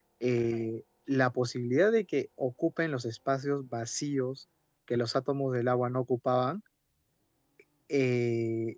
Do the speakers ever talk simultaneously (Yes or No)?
No